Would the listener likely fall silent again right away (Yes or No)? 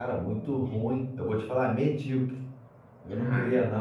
Yes